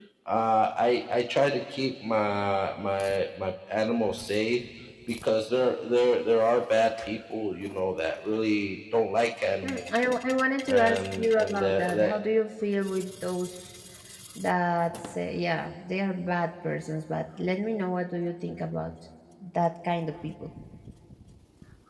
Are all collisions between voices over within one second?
No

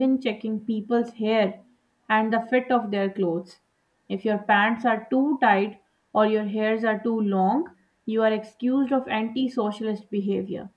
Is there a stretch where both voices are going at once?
No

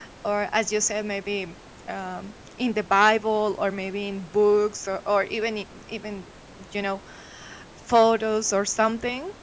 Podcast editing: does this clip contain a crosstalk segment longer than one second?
No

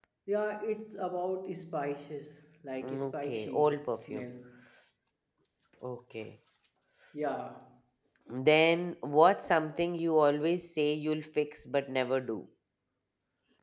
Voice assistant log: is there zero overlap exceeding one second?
No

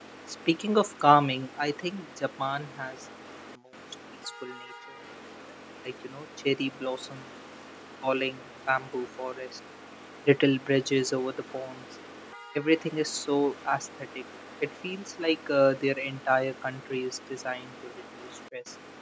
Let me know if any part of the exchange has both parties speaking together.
No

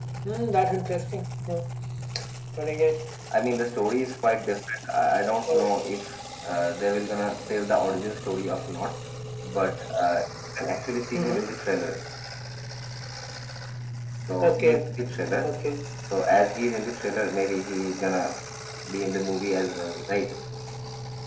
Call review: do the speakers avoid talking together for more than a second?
Yes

